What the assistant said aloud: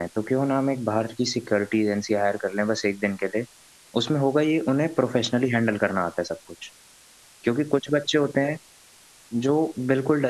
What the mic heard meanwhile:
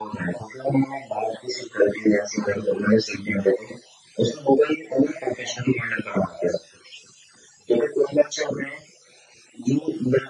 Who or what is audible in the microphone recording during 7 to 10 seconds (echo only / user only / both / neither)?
echo only